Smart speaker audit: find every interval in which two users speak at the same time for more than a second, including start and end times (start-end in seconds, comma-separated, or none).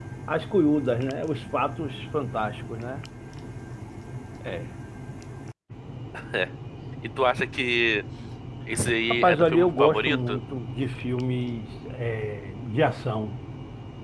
9.1-10.4